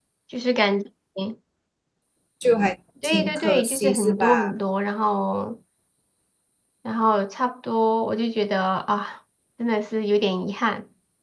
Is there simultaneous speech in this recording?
Yes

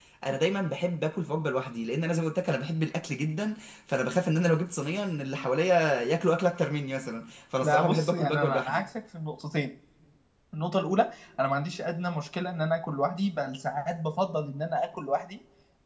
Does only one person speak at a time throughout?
No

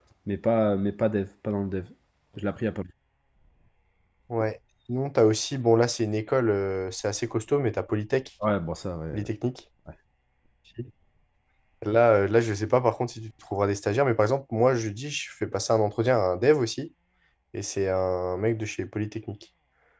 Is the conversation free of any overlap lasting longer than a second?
Yes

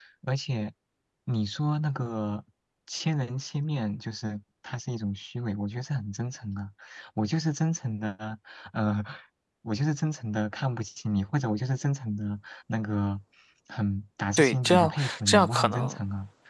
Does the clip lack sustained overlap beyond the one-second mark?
No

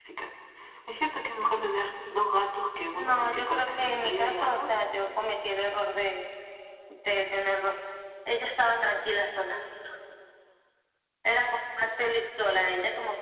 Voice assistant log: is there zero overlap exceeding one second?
No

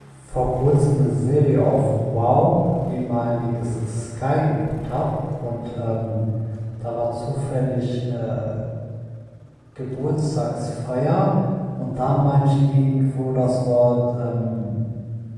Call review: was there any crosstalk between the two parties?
No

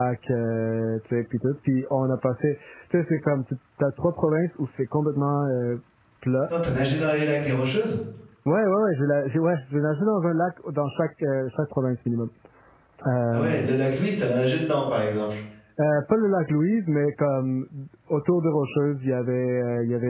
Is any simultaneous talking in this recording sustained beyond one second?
No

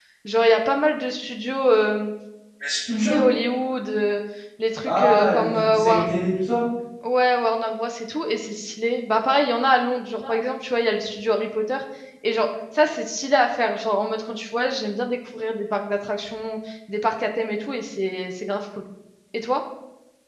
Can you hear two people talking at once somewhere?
Yes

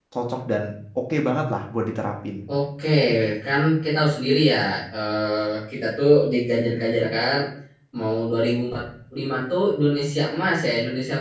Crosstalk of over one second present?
No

